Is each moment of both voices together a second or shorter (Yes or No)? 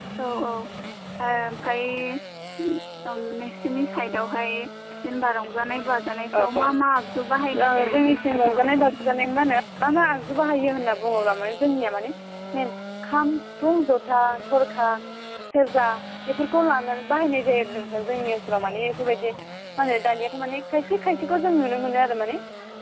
No